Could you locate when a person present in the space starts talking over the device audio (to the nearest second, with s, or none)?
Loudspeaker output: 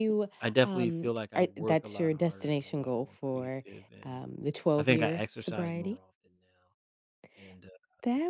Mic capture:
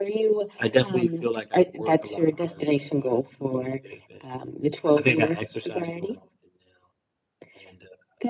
none